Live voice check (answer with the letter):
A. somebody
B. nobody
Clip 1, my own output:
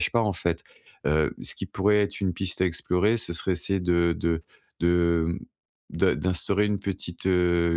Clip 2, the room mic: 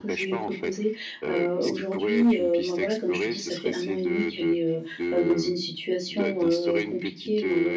A